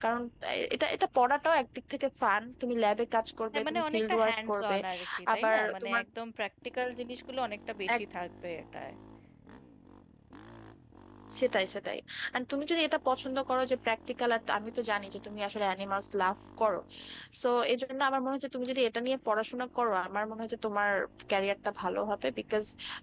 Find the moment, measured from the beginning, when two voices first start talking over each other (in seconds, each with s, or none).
3.5 s